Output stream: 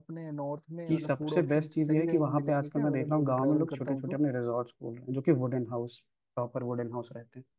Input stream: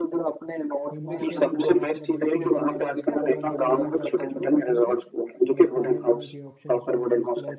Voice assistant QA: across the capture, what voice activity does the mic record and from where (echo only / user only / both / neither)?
both